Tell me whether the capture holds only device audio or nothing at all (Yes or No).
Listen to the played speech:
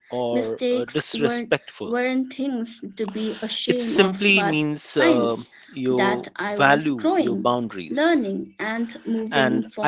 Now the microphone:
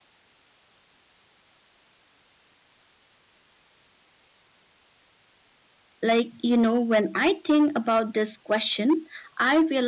No